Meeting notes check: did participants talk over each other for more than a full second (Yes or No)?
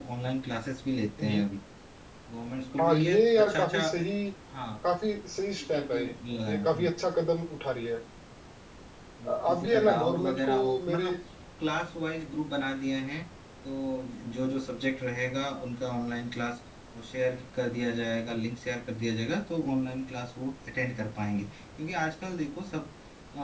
Yes